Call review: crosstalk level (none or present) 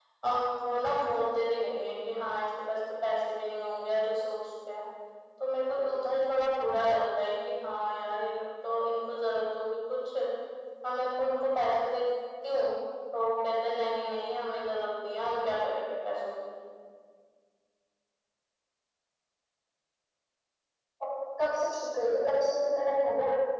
none